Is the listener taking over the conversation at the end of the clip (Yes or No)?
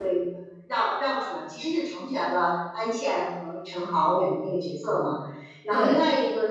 No